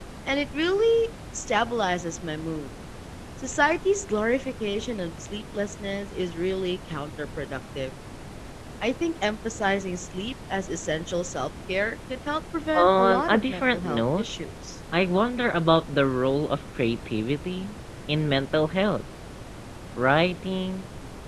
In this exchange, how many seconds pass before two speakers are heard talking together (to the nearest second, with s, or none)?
13 s